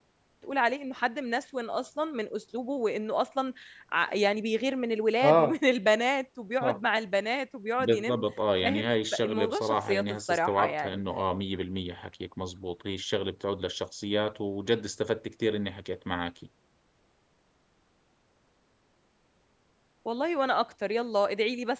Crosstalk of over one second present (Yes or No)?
Yes